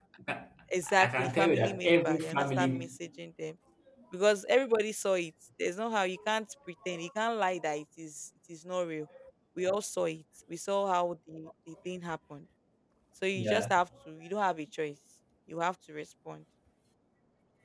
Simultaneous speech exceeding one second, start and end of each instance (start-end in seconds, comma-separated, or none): 0.9-3.0